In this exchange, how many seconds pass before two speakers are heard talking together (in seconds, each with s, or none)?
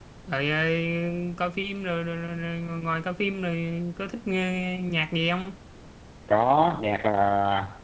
none